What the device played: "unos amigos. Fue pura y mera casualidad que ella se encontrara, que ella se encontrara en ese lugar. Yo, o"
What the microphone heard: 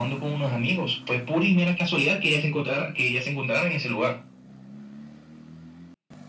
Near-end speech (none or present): none